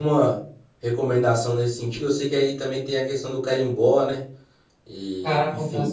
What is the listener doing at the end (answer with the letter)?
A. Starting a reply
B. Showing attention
A